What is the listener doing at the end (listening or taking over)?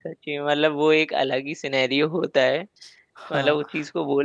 listening